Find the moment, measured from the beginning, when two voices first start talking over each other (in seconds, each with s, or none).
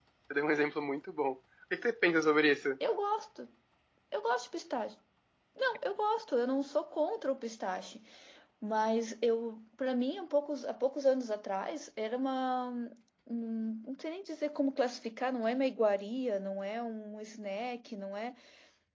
none